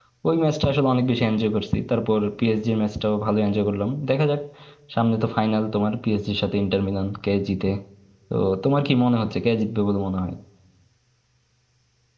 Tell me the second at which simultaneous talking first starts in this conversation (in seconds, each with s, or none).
none